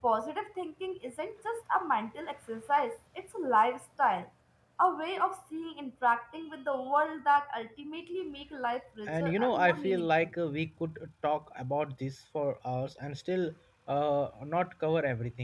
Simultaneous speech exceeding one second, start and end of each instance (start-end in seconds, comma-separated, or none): 9.1-10.3